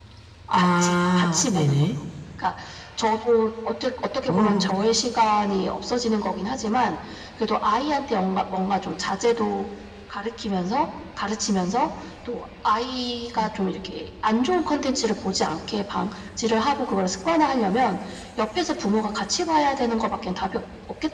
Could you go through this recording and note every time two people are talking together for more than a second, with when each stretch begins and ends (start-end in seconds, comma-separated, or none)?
0.6-1.9